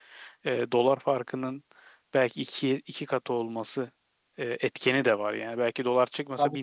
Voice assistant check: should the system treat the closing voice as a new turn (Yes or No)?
Yes